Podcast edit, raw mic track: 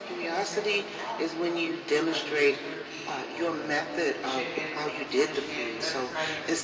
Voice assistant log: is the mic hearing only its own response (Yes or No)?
No